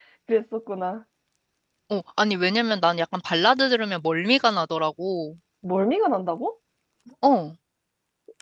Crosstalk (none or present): none